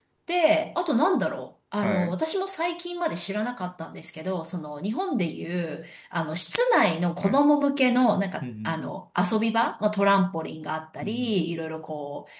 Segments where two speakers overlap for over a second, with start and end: none

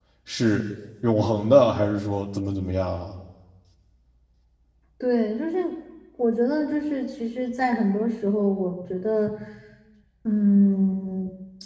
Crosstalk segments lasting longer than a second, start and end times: none

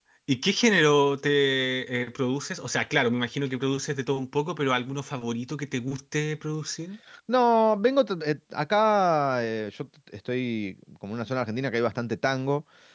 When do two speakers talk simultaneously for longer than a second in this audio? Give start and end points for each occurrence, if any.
none

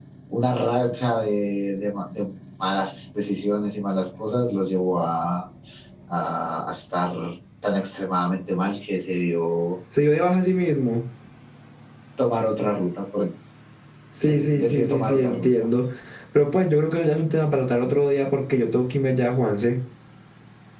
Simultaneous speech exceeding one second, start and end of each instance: 14.2-15.7

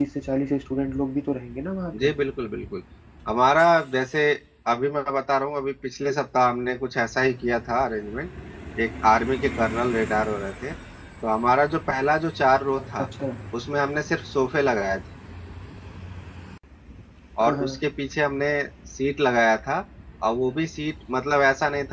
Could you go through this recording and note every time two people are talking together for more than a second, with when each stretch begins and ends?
none

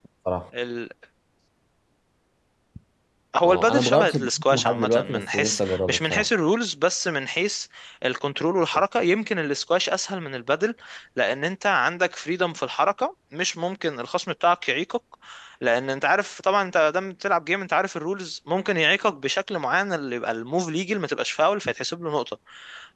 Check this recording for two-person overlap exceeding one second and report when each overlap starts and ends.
3.4-6.3

